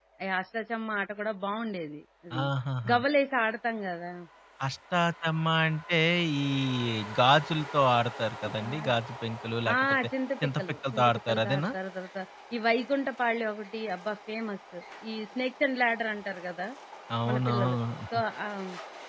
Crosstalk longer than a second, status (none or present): present